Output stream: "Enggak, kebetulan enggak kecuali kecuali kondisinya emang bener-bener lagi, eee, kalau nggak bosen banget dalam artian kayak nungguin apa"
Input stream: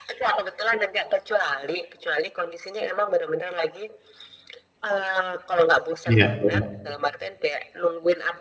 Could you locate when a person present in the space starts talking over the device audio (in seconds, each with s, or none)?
6.0 s